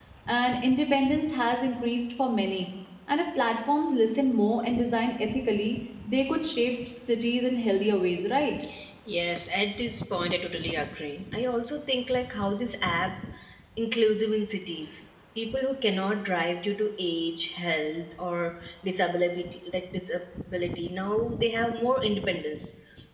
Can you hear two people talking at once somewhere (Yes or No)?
No